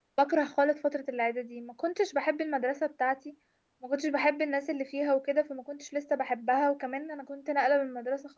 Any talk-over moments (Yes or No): No